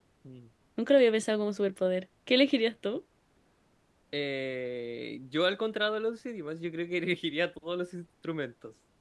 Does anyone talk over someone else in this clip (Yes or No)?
No